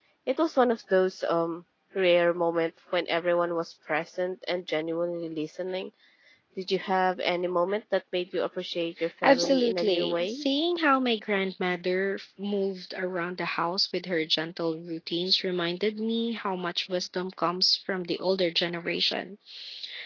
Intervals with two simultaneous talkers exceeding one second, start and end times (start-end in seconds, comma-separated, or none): 9.2-10.4